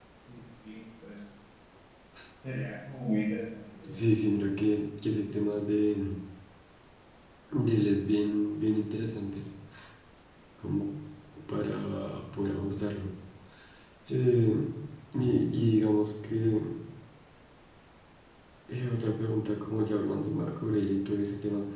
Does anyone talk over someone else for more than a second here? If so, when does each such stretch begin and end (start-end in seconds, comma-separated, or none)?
none